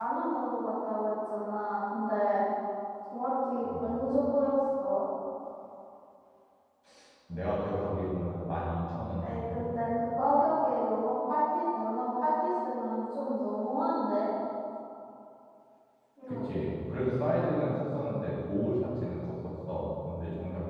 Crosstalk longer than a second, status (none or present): none